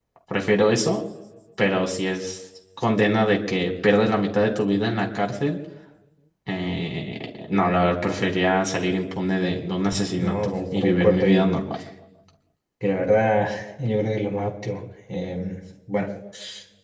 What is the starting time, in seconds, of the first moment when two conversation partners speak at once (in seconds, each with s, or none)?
10.2 s